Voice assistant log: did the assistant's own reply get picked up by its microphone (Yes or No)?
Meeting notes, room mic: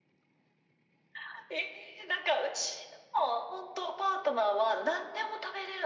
Yes